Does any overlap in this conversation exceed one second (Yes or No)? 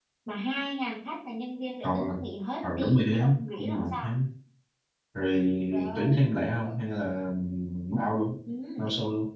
Yes